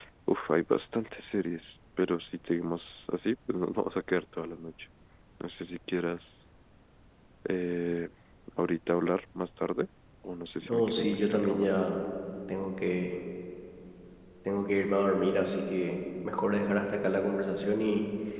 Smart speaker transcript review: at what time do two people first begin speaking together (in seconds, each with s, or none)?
10.6 s